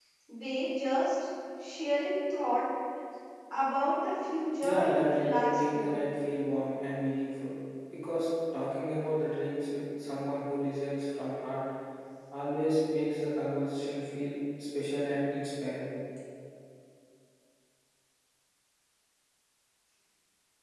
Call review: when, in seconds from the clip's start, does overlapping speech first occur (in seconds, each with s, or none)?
4.6 s